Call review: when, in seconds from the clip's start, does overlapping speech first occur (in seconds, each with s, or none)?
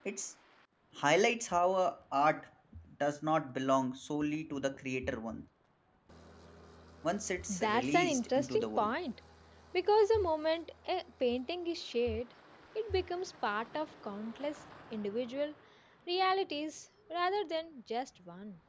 7.5 s